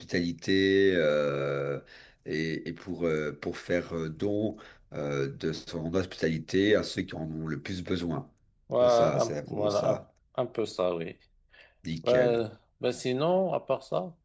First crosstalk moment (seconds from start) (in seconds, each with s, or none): 8.8 s